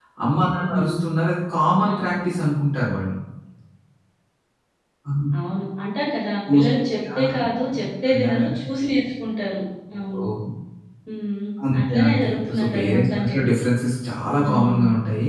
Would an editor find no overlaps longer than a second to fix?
No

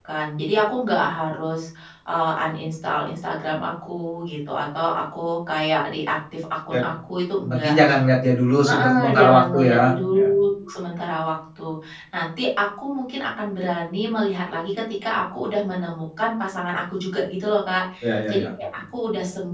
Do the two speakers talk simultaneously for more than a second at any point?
Yes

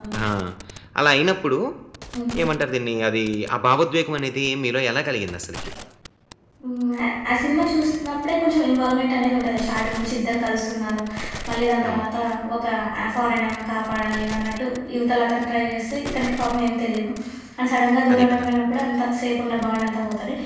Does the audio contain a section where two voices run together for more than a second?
No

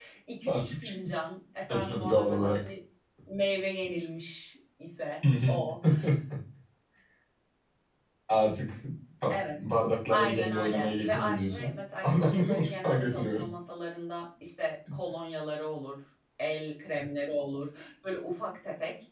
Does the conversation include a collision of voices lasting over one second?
Yes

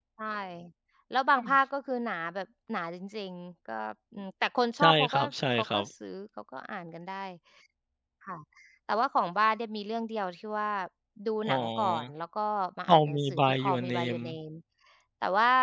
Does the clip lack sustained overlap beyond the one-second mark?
No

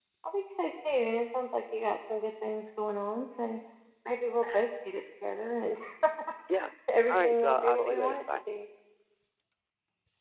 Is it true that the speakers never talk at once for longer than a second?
No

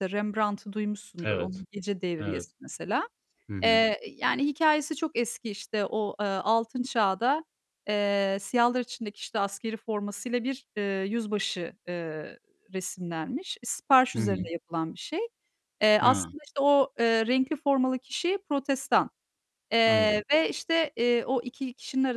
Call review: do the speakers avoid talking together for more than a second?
Yes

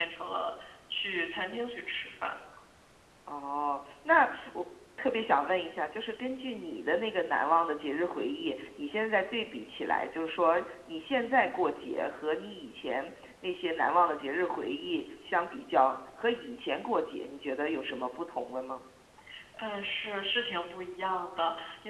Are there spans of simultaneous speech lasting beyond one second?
No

